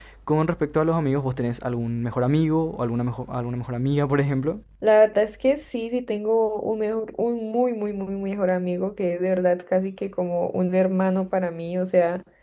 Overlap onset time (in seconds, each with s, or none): none